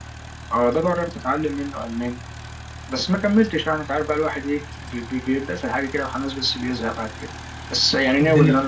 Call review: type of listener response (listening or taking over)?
listening